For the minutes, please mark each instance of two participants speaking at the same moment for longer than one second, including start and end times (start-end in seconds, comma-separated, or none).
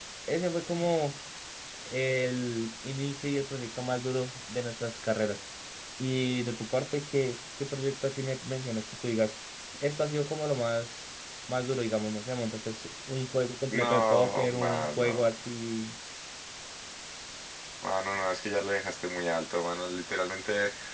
13.7-15.2